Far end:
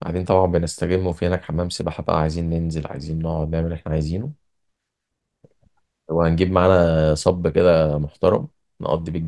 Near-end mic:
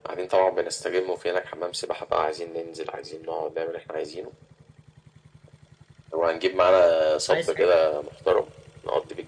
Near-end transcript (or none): عايز حاجه